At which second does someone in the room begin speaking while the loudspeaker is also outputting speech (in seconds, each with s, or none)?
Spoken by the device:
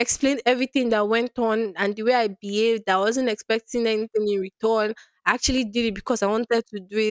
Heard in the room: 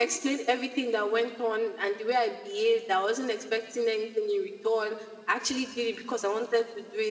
none